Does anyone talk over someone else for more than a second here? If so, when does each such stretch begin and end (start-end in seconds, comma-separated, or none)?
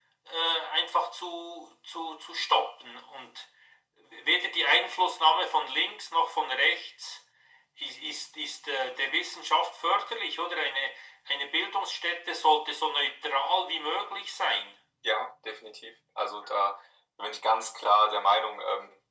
none